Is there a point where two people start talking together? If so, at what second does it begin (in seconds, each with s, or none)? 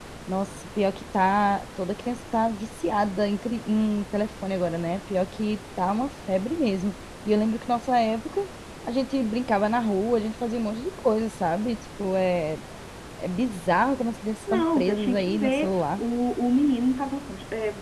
14.5 s